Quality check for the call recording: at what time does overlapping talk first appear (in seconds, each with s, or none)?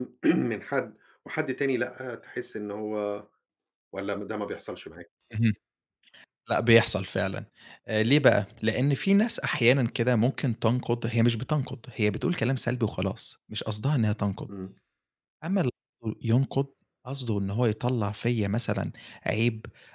none